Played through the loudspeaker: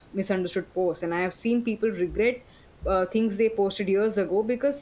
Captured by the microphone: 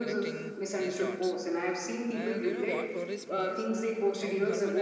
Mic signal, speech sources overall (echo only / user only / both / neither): both